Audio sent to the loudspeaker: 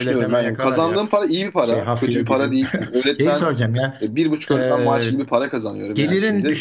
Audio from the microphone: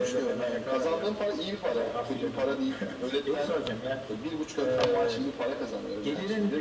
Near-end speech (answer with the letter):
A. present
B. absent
B